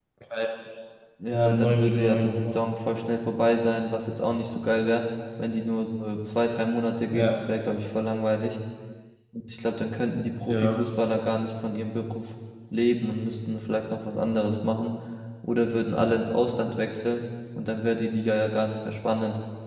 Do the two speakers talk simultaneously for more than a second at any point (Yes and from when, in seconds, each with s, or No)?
Yes, from 1.3 s